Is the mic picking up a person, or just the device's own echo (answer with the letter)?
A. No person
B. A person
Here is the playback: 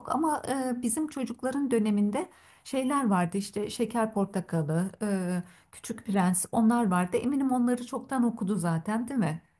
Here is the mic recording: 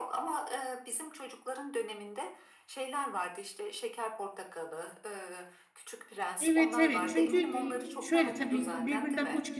B